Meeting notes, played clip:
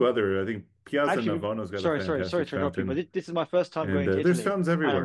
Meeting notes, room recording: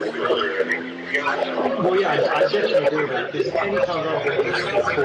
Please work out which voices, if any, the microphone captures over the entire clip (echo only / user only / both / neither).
both